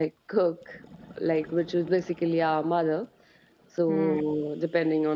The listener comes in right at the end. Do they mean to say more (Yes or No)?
No